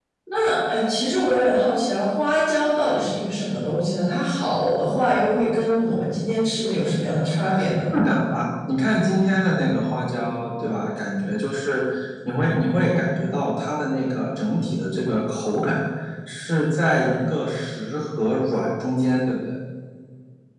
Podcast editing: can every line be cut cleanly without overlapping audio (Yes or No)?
Yes